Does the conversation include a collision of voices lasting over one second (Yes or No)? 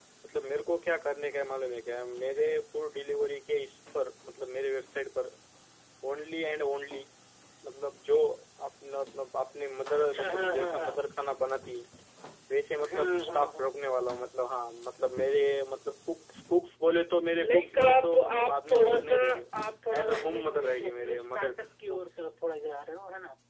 Yes